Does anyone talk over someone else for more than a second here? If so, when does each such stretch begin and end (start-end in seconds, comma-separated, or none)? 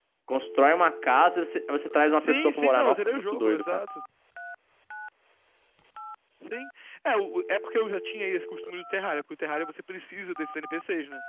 2.1-3.8